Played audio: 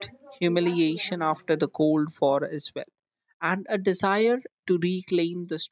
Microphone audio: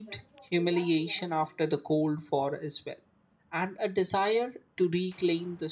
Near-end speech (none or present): none